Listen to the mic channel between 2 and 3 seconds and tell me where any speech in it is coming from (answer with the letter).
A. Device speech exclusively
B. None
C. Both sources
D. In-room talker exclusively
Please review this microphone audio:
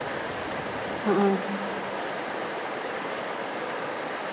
B